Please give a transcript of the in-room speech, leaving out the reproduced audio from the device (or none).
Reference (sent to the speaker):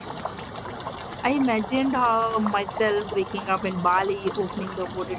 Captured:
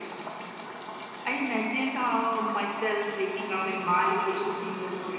none